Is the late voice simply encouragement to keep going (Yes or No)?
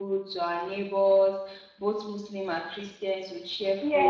No